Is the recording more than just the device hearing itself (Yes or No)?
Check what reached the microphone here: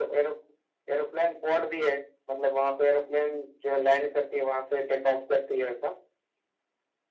No